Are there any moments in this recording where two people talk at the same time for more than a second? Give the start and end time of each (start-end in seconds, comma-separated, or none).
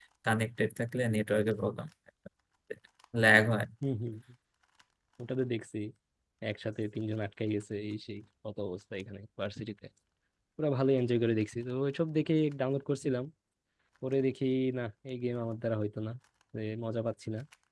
none